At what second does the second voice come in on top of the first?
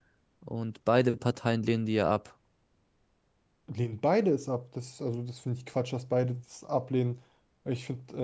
none

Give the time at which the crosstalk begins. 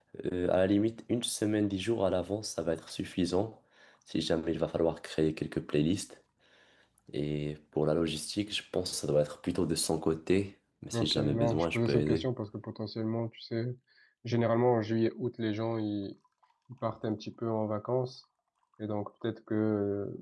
11 s

